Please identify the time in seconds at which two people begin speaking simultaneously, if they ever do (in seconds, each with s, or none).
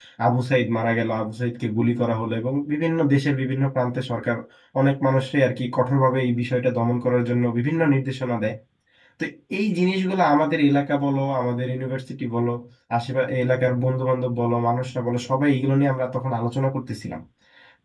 none